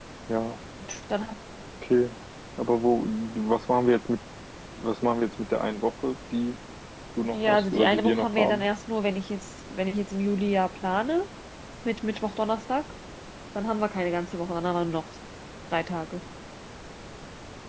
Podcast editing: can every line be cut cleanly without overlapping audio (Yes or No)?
No